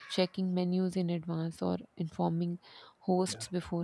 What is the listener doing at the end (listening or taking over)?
listening